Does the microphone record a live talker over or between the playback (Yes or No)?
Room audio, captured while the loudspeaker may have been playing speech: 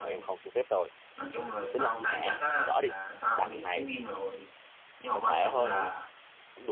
Yes